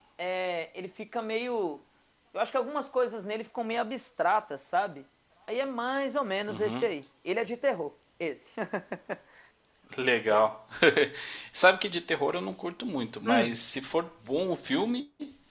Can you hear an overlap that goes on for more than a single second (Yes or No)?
No